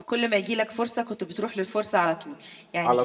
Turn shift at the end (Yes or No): No